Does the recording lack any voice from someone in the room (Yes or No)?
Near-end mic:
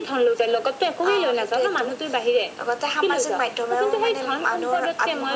Yes